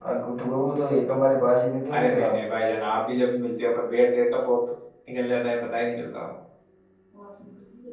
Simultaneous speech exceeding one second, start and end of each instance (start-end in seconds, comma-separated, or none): none